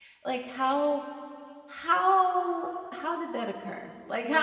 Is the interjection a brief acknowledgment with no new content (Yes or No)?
Yes